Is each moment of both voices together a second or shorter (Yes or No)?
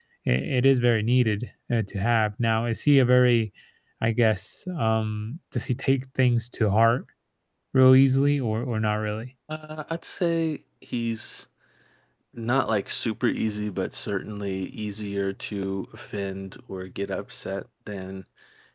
Yes